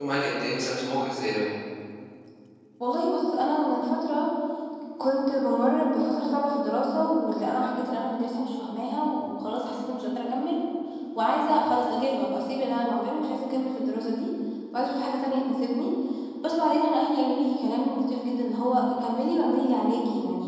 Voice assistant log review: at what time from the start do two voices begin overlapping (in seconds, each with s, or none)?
none